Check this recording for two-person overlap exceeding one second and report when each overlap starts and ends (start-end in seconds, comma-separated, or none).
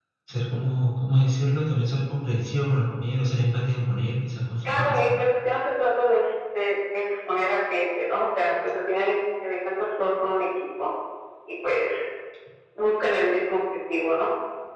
none